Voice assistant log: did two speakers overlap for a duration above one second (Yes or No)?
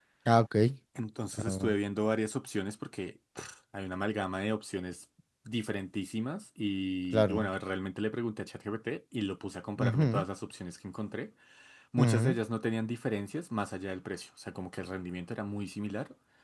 No